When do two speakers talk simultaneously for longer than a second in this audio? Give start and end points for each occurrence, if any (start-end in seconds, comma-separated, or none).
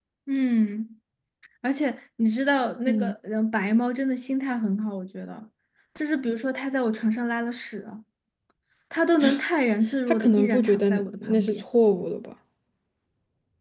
10.1-11.6